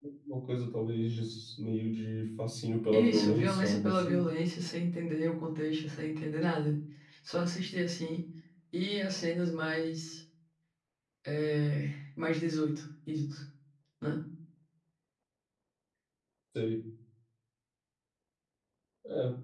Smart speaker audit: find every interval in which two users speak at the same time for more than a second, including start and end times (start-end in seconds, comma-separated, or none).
2.9-4.2